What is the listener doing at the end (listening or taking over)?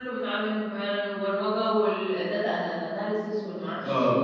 taking over